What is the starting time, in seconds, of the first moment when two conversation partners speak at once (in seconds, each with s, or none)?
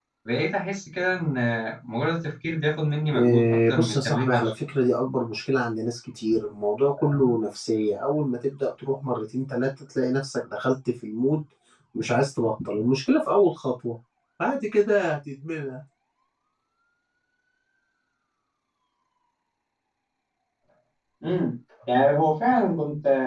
3.1 s